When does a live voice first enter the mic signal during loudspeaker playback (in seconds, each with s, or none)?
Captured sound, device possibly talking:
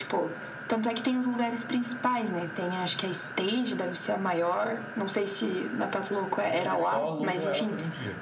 6.5 s